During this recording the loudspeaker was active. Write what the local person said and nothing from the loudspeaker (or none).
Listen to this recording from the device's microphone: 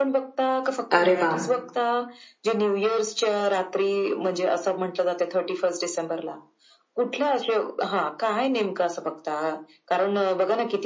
अरे वाह!